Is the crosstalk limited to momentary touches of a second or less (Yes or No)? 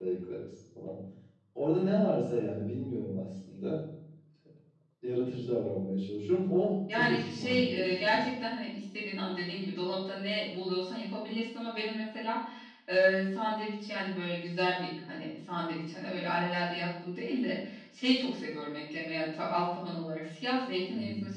No